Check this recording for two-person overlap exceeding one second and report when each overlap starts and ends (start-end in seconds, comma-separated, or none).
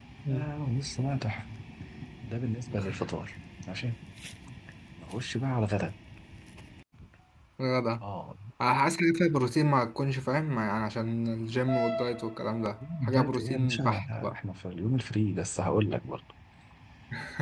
13.0-14.3